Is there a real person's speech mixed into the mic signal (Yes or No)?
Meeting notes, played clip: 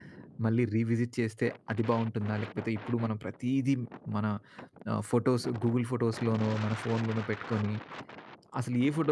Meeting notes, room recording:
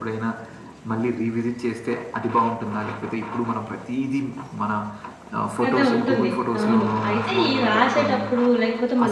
Yes